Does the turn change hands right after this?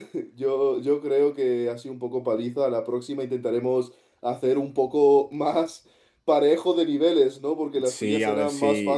Yes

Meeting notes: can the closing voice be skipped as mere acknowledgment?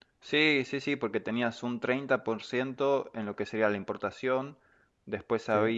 Yes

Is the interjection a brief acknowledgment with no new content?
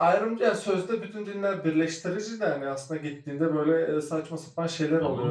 No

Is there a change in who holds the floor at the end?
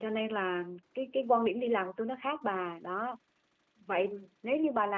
No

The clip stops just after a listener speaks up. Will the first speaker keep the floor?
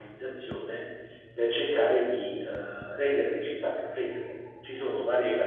Yes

